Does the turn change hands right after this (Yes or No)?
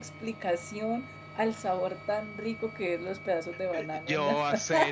Yes